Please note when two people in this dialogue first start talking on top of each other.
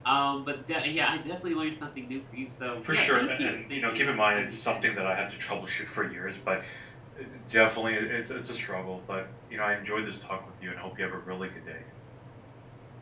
2.8 s

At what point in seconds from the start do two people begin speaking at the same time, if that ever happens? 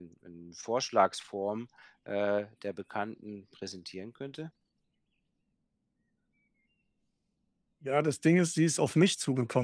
none

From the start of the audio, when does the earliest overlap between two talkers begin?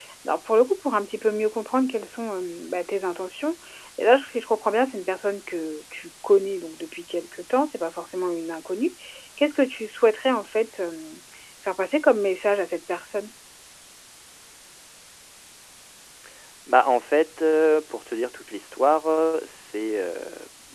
none

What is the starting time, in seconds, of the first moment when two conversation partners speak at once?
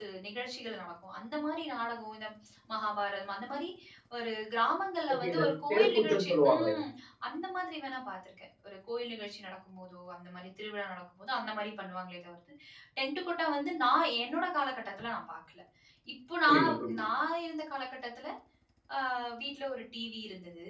5.1 s

